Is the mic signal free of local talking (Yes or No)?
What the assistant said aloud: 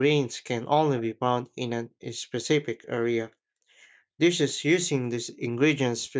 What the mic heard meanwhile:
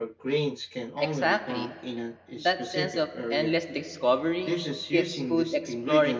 No